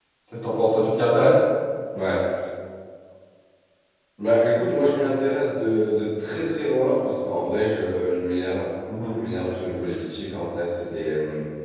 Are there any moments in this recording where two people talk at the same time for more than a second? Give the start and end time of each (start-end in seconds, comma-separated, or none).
none